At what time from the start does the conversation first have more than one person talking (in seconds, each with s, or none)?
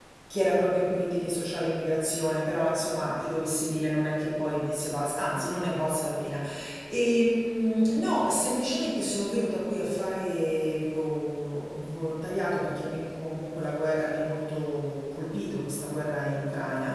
none